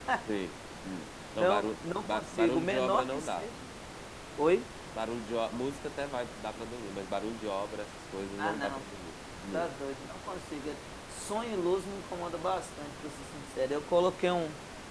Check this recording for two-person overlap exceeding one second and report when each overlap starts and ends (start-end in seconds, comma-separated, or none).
1.4-3.5